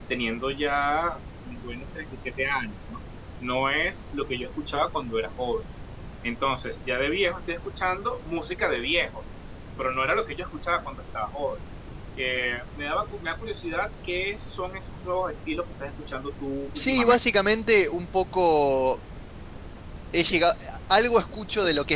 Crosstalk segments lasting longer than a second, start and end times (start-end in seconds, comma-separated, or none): none